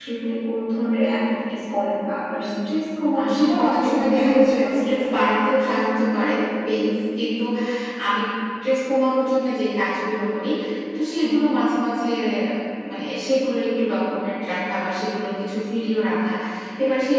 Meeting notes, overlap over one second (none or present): present